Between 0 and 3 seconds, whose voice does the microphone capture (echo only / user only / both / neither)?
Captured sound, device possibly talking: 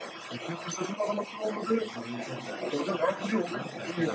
both